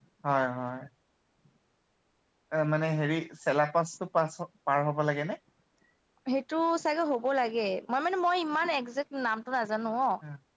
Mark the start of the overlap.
none

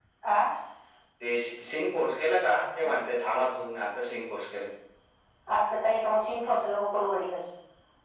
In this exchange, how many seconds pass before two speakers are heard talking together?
none

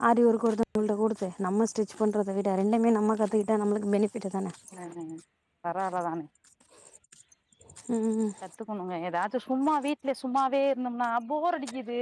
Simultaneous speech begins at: none

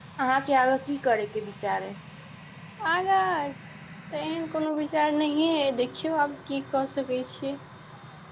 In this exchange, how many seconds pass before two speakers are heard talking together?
none

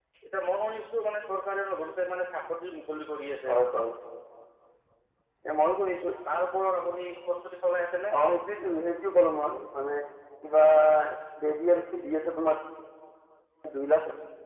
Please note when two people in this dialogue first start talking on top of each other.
none

